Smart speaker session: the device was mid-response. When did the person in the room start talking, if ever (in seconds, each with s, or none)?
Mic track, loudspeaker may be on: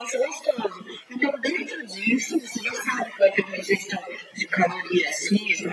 none